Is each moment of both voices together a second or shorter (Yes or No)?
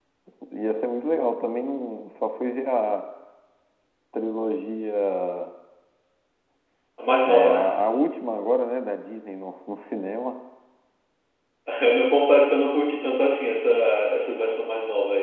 Yes